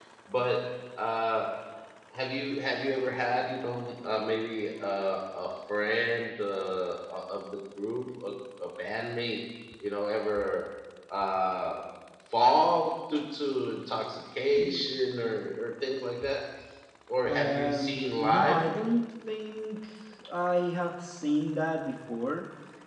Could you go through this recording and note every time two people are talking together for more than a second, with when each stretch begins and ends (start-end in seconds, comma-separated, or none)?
17.3-18.6